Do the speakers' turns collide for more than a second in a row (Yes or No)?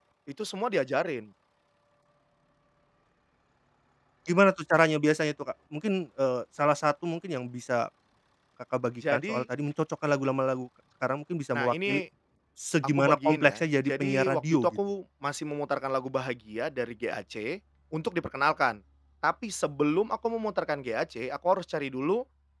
Yes